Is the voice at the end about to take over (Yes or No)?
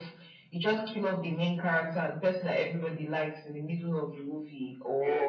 Yes